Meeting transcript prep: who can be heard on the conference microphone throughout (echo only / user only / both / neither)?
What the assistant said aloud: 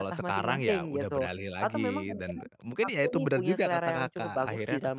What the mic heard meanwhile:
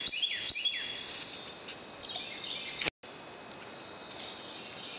neither